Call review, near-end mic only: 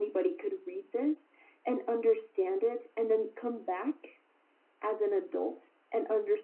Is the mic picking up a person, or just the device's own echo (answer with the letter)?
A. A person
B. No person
B